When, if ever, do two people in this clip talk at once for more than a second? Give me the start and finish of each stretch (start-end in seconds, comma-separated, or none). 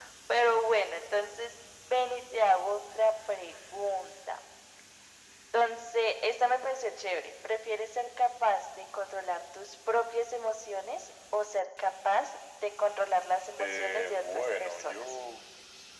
13.6-15.1